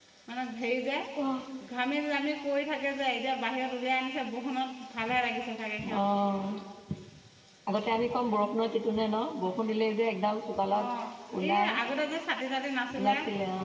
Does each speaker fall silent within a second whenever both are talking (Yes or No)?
Yes